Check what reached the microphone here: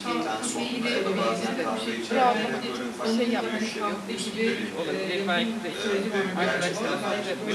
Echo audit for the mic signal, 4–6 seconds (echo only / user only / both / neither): both